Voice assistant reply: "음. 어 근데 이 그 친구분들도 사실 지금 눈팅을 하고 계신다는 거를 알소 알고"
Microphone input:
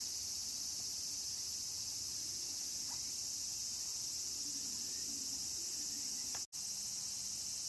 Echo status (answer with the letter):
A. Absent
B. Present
A